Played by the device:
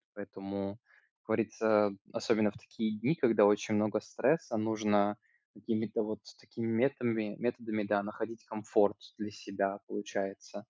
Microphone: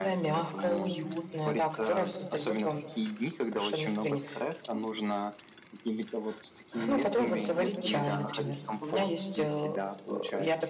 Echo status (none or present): present